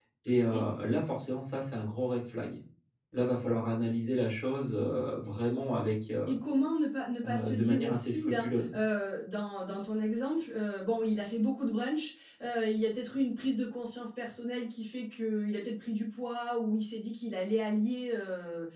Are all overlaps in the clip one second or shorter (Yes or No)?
No